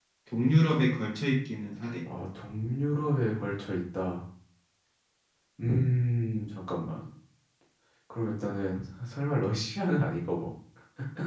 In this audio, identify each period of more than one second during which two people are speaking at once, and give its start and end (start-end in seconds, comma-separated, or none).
none